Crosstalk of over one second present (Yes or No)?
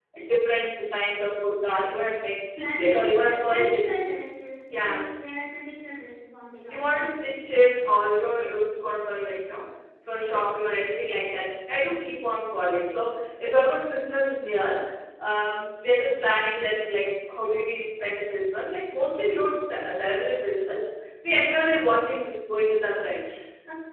Yes